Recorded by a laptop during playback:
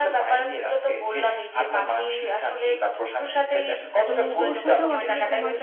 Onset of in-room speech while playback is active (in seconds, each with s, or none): 4.0 s